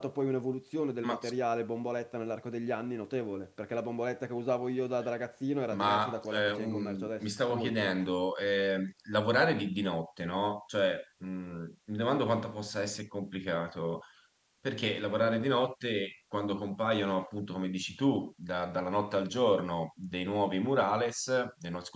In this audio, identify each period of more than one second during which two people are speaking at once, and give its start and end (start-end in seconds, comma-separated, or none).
5.7-7.8